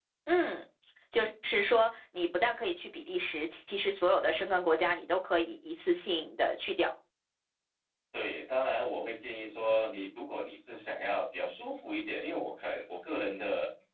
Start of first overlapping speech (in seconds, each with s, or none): none